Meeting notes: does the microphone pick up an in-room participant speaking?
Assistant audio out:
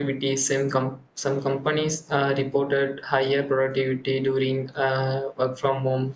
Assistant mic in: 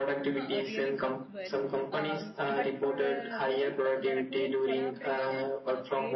Yes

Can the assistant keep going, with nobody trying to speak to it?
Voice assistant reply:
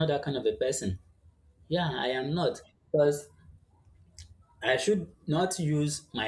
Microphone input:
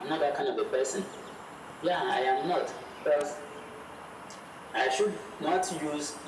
Yes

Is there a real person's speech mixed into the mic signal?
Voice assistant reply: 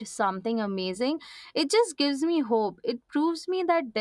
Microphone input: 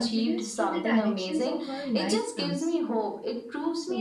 Yes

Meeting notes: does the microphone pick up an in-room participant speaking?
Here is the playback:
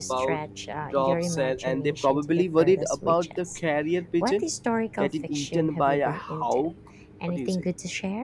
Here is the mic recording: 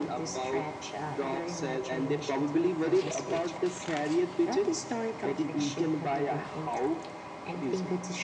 No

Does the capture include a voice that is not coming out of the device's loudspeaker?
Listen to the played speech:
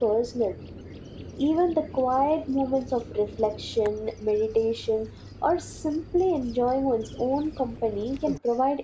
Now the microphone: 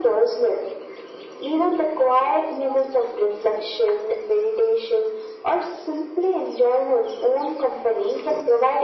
No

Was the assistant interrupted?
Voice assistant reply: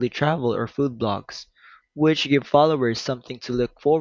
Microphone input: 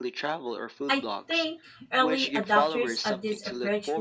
Yes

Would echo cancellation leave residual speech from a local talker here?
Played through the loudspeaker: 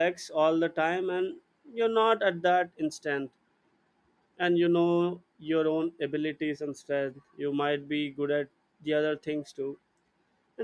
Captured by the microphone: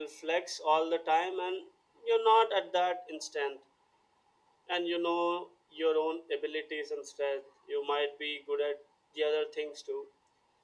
No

